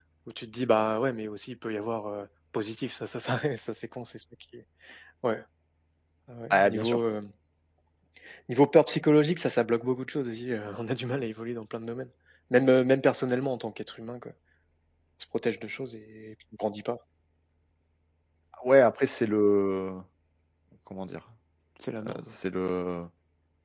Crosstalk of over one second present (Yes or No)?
No